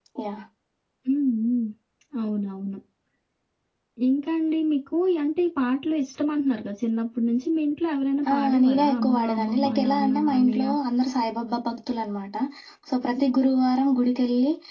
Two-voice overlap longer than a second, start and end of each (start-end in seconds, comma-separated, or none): 8.3-10.7